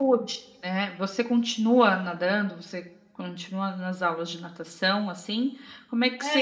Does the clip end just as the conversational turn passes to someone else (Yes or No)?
No